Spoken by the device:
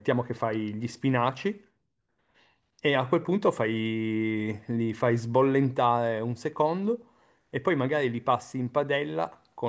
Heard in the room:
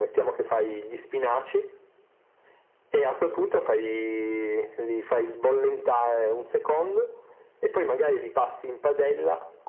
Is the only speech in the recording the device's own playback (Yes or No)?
Yes